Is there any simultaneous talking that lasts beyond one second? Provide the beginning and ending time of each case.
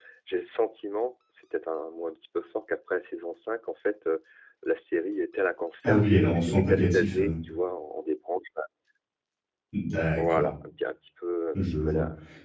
5.8-7.3

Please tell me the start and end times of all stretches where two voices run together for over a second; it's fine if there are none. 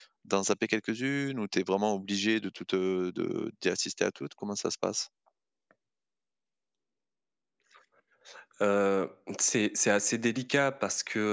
none

